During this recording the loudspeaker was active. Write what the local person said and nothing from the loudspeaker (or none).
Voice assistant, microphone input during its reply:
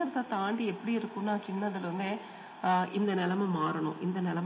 none